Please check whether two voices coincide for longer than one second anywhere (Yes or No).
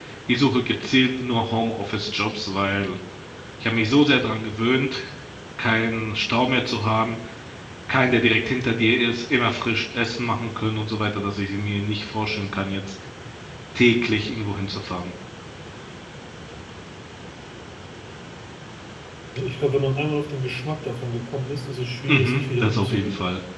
Yes